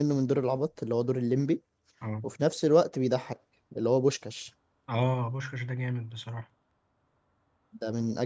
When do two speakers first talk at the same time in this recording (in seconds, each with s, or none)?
none